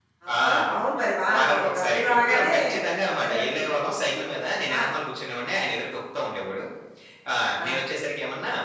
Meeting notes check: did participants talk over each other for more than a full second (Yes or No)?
Yes